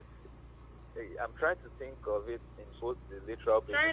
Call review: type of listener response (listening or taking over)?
taking over